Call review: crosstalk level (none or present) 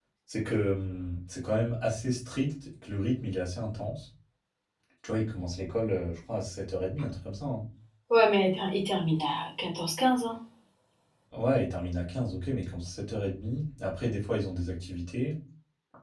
none